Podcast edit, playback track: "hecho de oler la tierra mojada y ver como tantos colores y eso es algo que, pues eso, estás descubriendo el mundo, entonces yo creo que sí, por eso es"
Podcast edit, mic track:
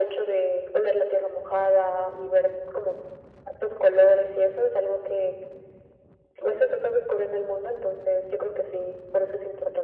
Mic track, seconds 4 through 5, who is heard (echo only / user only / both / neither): echo only